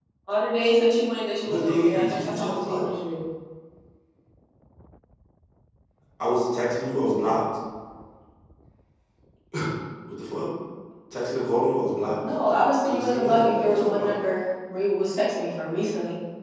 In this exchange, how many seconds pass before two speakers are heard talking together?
1.4 s

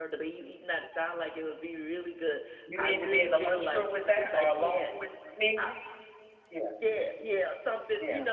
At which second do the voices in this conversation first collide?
2.7 s

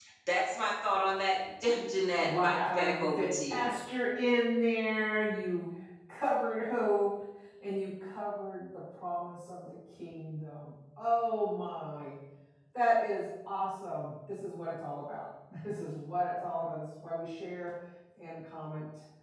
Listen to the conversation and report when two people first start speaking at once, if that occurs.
2.2 s

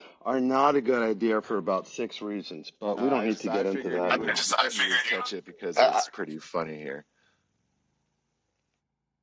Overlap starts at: 3.0 s

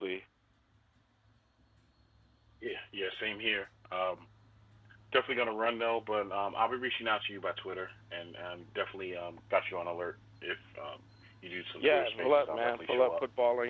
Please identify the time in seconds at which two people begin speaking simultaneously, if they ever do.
11.8 s

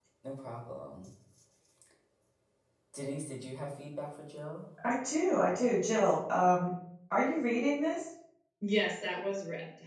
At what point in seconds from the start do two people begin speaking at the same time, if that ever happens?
none

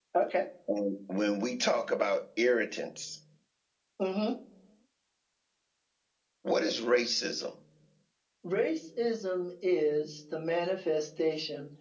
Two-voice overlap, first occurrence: none

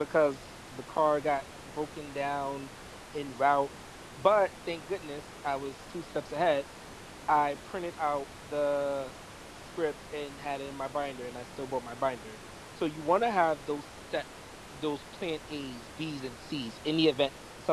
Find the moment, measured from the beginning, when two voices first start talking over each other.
none

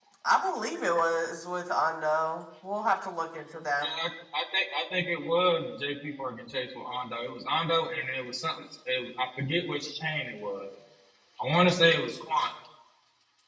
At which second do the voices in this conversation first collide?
none

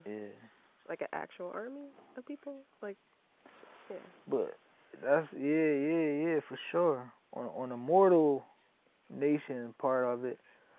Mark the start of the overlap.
none

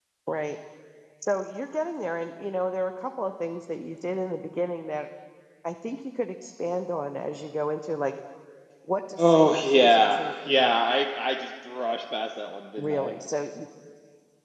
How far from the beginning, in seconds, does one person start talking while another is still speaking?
9.2 s

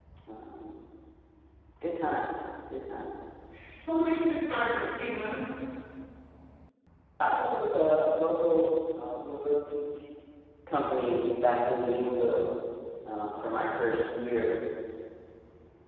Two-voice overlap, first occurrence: none

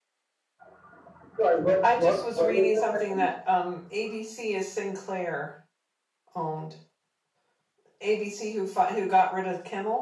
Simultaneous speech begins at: 1.8 s

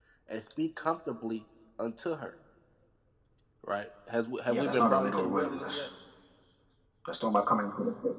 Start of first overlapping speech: 4.5 s

